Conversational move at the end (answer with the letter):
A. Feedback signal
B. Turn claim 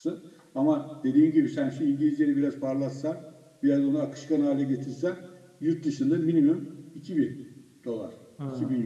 B